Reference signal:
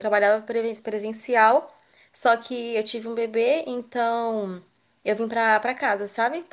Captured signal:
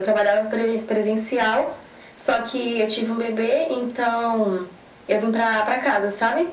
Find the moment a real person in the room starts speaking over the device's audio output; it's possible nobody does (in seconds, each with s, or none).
none